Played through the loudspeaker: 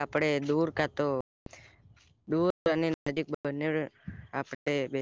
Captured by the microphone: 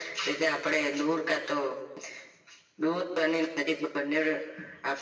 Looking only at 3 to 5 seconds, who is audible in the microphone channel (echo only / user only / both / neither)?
echo only